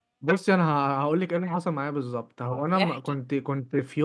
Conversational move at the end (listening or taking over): listening